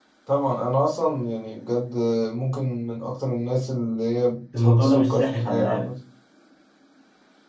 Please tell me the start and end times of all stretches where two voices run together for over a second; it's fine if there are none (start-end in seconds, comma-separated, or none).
4.6-5.9